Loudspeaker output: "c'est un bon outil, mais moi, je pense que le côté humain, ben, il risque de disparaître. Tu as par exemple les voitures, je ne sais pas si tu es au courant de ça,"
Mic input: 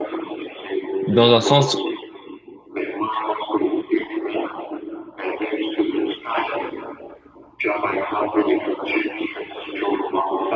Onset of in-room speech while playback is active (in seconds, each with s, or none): 1.1 s